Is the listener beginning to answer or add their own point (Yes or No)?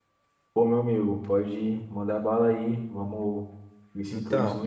No